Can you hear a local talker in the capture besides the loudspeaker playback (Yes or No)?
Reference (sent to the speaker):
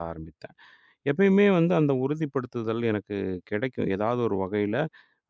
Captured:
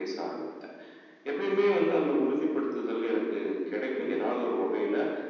No